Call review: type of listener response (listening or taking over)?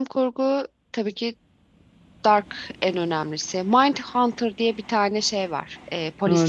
taking over